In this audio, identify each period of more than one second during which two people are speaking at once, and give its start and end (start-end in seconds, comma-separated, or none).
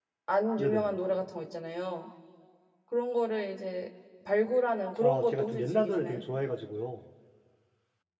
5.0-6.2